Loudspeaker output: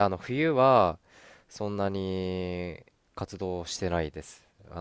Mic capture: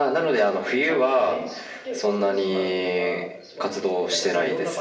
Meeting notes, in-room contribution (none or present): present